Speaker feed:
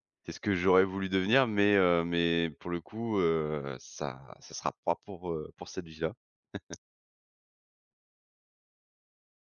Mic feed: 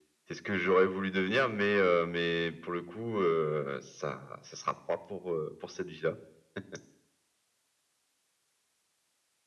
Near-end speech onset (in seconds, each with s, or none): none